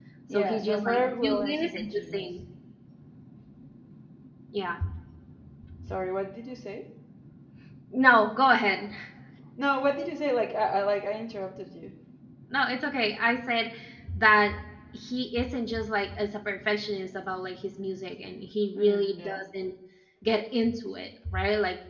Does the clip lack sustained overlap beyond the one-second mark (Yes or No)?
No